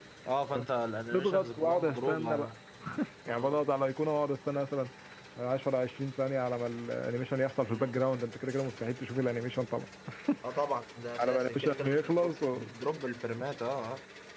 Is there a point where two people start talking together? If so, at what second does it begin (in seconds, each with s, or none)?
1.1 s